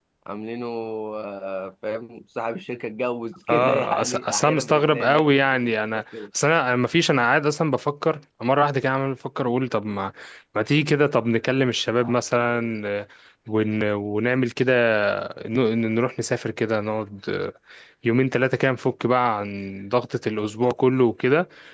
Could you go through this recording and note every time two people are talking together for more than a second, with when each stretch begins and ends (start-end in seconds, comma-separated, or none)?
3.5-6.0